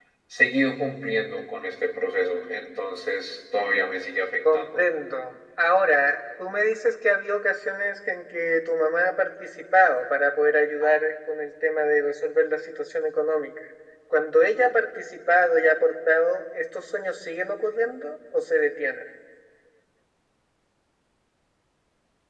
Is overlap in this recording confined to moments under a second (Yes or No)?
Yes